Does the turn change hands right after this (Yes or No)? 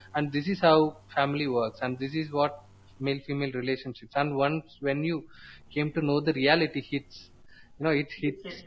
No